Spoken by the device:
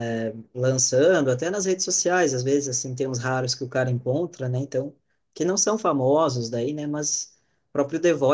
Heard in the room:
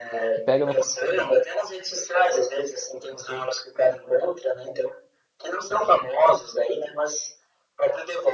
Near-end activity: present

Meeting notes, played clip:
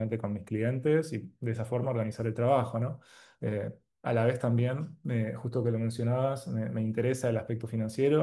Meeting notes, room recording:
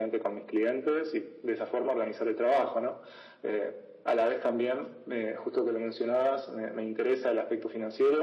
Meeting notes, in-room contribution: none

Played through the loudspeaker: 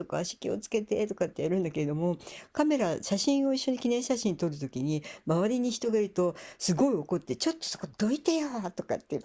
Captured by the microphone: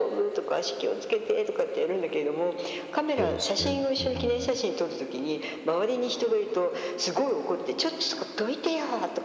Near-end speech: present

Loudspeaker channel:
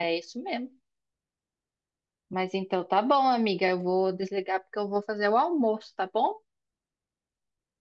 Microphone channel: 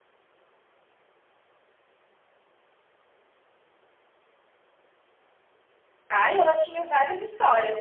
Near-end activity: present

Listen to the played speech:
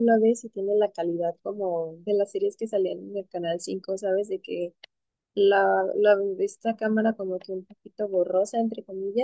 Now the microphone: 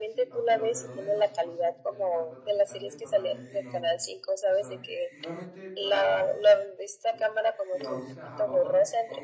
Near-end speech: present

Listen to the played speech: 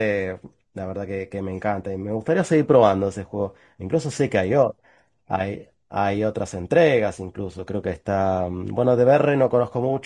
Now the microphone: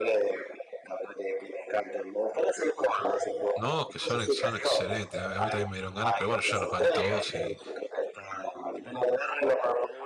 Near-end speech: present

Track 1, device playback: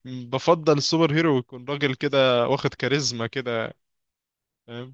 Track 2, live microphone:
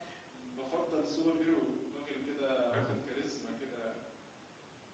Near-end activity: present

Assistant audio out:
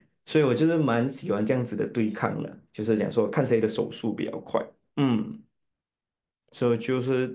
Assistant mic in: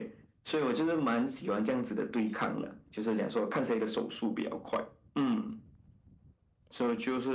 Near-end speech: none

